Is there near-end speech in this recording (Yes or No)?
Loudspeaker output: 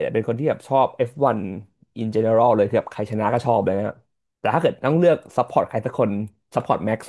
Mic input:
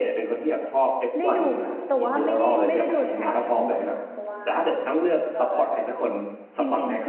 Yes